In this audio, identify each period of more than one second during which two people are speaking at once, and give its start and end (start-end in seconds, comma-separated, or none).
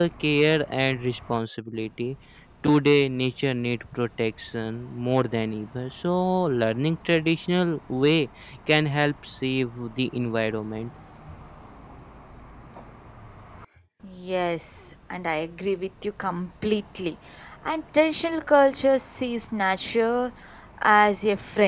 none